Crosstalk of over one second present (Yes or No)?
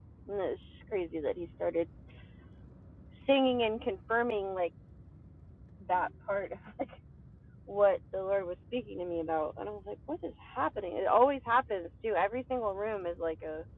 No